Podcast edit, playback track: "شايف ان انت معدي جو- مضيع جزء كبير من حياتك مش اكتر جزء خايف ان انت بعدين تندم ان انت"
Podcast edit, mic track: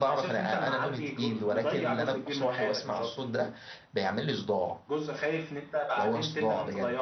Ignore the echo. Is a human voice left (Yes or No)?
Yes